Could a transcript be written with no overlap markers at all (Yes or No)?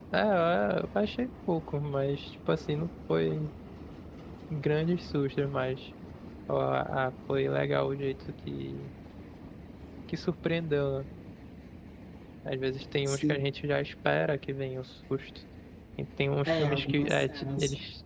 No